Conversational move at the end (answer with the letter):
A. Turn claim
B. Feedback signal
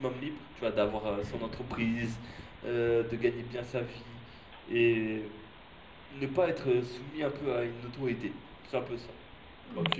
A